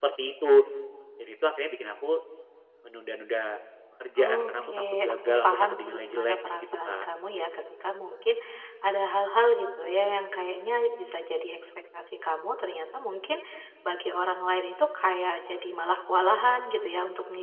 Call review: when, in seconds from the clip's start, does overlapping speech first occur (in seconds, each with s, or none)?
4.2 s